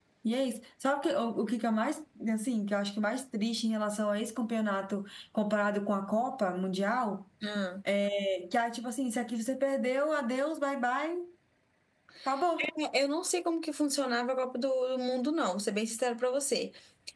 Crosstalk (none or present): none